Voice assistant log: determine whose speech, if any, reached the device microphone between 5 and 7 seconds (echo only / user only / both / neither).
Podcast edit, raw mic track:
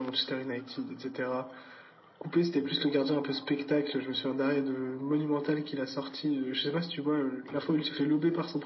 echo only